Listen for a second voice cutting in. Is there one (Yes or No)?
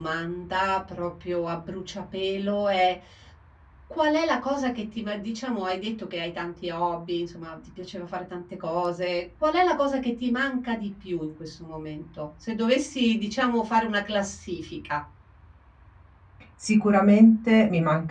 No